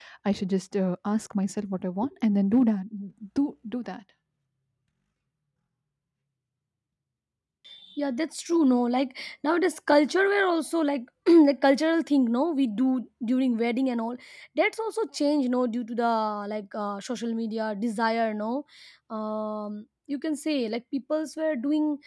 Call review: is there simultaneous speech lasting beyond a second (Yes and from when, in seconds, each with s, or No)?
No